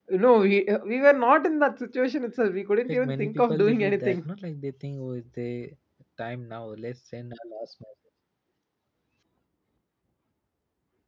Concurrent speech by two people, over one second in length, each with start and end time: 2.9-4.2

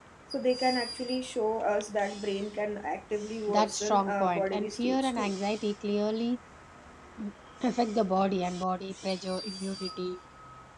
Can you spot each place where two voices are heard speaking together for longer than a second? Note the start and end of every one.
3.5-5.4

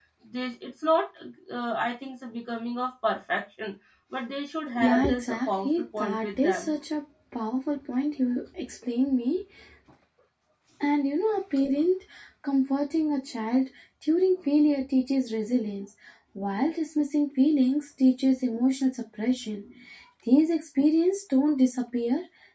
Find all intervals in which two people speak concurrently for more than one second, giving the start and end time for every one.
4.8-6.7

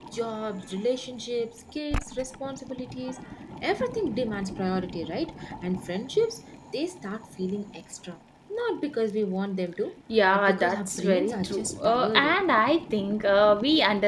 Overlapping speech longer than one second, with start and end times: 10.3-12.4

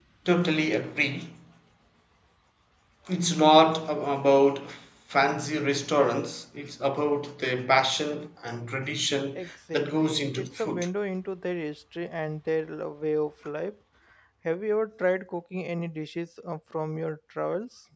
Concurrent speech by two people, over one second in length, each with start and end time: 9.4-10.9

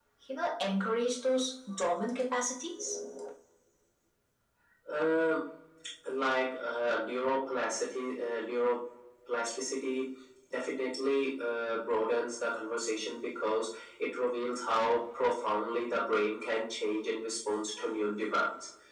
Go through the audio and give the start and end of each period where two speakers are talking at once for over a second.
none

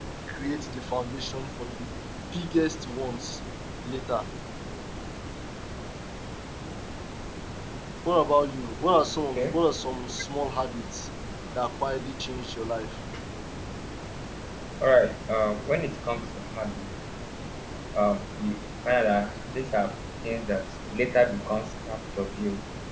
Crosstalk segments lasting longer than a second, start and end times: none

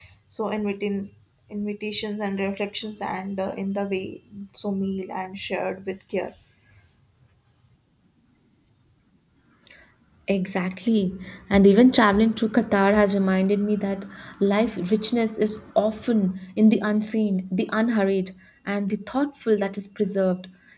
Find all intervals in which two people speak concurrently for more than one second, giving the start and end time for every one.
none

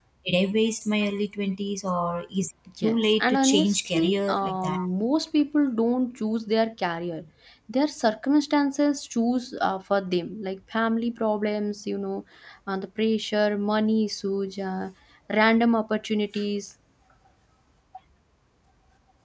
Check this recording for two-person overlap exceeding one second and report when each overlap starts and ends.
2.8-4.8

